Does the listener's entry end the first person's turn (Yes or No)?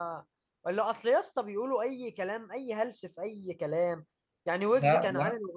No